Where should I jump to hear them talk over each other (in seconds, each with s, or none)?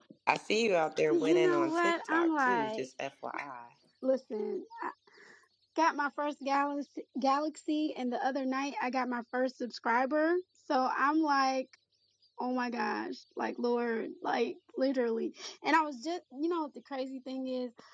1.1 s